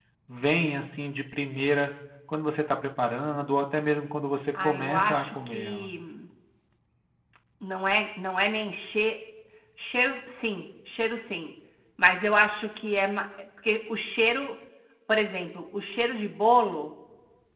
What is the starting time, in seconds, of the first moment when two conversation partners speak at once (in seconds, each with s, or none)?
4.5 s